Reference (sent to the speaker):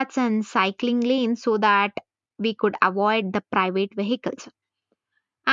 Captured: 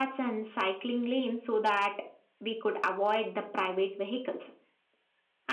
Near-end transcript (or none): none